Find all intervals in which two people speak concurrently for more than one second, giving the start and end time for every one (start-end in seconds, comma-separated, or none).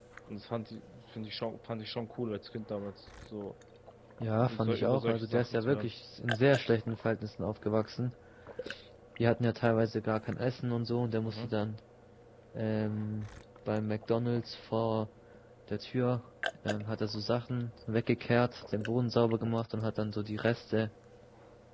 4.5-5.9